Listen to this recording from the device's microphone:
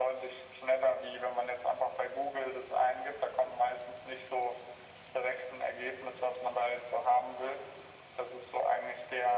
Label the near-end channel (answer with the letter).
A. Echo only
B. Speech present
A